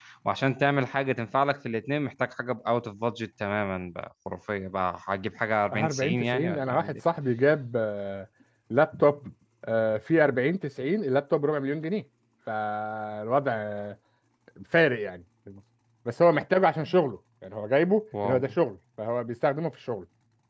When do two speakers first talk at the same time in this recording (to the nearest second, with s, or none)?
6 s